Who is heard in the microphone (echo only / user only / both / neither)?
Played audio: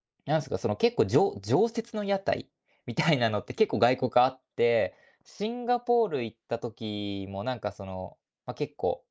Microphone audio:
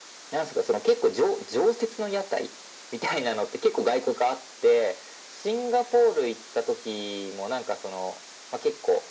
echo only